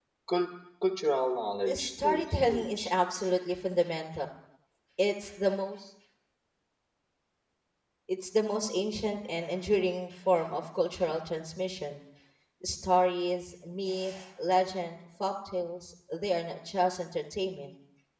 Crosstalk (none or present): present